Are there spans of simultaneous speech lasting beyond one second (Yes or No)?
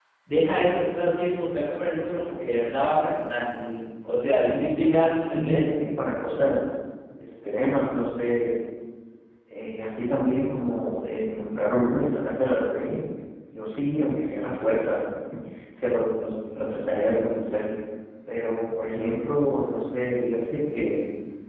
Yes